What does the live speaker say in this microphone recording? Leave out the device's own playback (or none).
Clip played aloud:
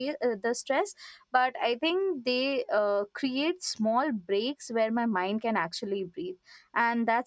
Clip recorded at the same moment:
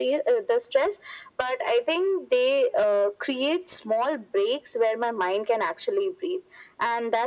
none